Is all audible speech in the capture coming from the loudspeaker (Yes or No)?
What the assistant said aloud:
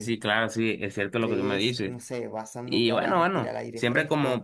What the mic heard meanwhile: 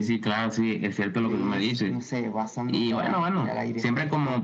Yes